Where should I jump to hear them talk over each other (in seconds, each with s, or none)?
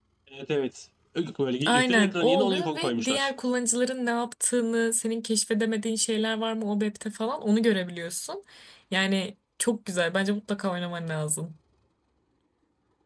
1.6 s